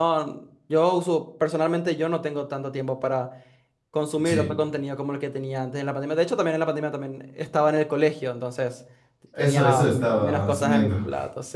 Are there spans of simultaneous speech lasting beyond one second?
Yes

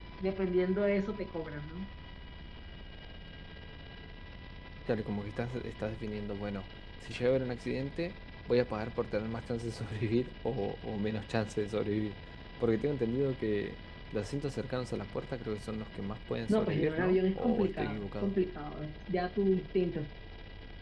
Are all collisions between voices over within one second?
No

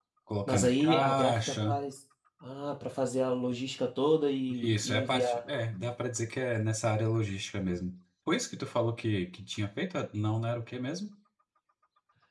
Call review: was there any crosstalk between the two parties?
Yes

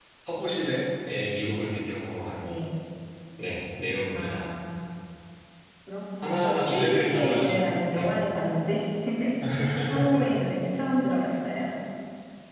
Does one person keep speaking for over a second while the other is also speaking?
Yes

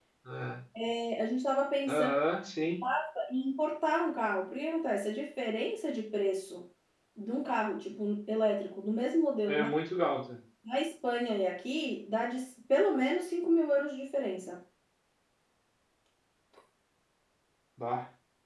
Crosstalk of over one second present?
No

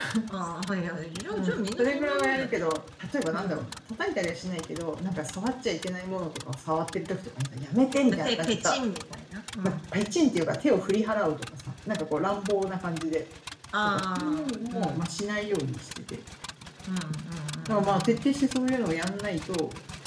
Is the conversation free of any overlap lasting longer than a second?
No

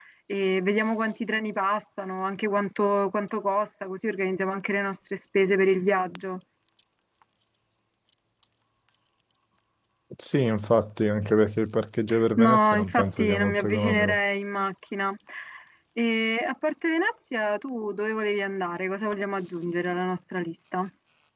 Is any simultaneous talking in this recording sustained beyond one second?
Yes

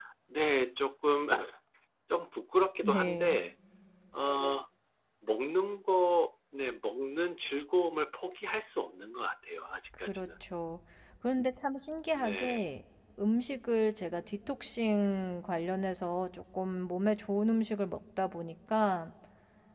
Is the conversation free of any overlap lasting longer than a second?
Yes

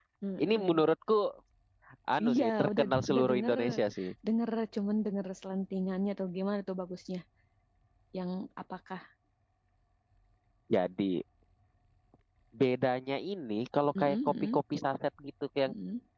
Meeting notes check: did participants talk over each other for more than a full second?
Yes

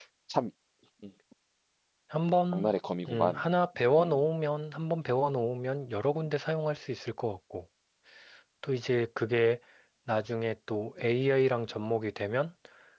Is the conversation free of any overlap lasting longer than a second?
Yes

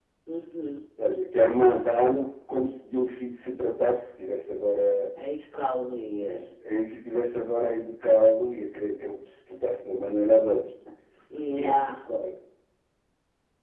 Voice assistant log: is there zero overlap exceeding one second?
Yes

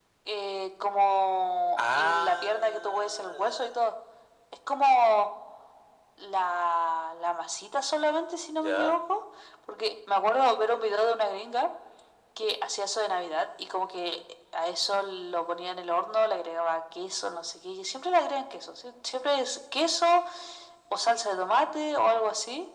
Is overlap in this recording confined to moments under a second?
No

